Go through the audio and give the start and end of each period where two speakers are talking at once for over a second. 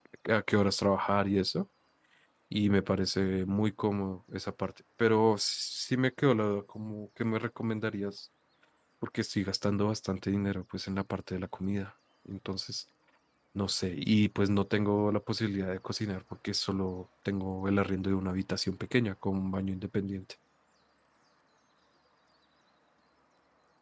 none

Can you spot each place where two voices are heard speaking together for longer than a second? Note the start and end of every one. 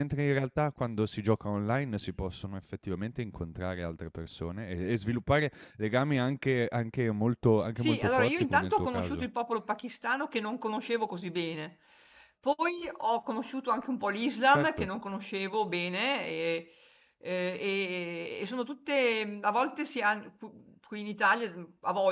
7.8-9.3

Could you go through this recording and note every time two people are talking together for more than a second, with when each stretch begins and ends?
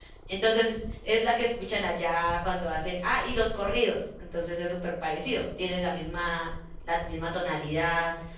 none

